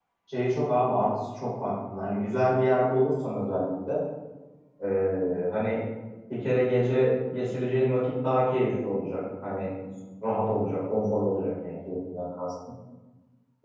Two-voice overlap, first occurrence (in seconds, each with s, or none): none